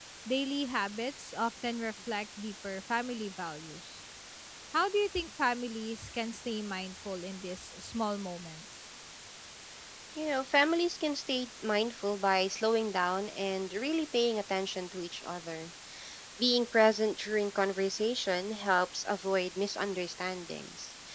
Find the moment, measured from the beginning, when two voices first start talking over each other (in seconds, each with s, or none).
none